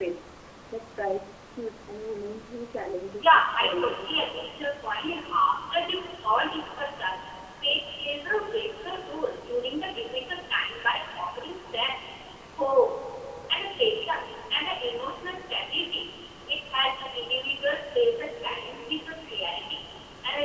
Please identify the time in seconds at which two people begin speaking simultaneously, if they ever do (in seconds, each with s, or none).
3.2 s